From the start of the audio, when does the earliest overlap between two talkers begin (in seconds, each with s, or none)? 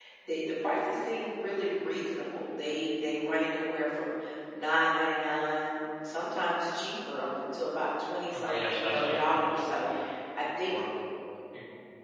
8.3 s